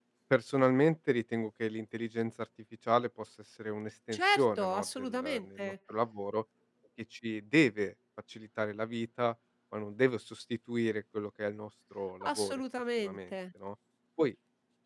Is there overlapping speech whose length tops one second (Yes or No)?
Yes